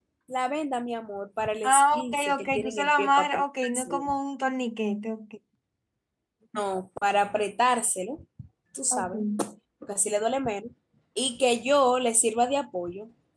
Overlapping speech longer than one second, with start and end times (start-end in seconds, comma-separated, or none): 1.6-4.0